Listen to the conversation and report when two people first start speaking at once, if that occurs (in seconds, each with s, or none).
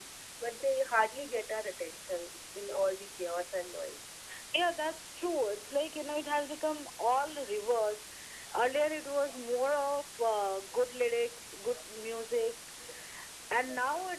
none